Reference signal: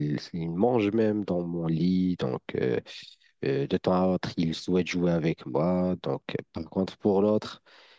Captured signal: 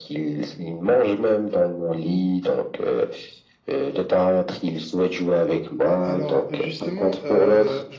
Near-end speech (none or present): present